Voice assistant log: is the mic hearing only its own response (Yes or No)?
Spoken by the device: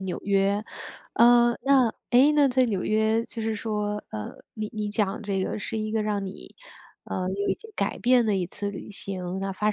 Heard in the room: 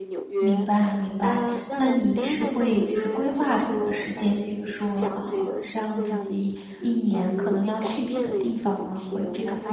No